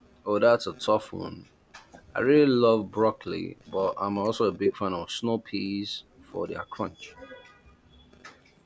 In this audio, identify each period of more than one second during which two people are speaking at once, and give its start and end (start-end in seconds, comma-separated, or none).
none